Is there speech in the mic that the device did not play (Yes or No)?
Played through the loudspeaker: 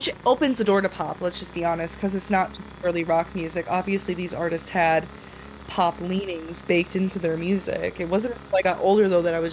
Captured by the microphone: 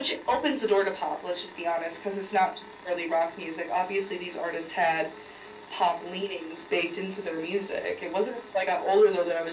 No